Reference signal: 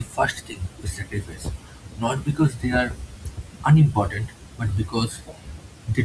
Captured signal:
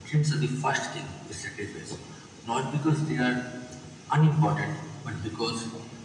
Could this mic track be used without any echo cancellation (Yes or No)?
No